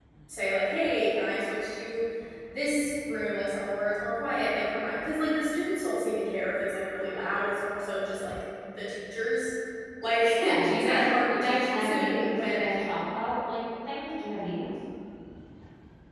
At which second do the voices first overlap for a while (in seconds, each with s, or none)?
10.3 s